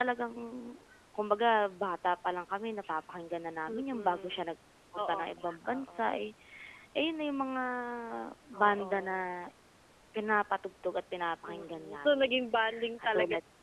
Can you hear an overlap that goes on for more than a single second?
Yes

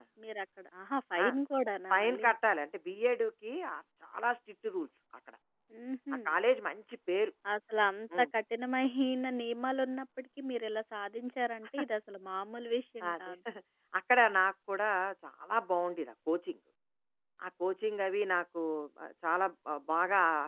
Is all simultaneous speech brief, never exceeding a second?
Yes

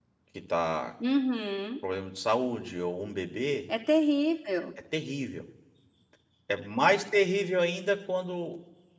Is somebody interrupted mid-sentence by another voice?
No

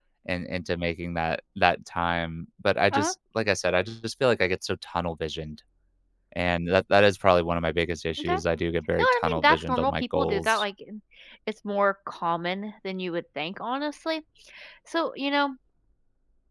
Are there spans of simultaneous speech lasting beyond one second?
Yes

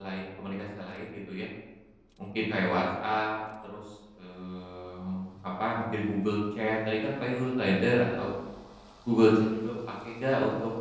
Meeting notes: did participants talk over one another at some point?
No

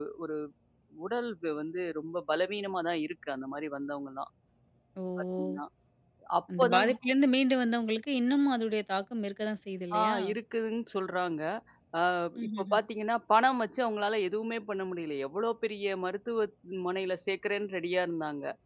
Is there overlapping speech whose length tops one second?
No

